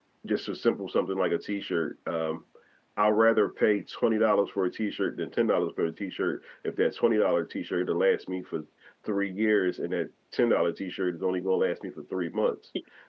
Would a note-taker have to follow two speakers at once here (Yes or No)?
No